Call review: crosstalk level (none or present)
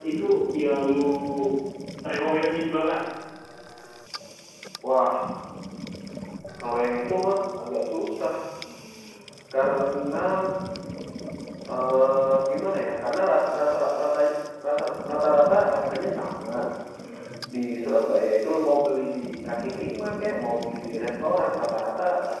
none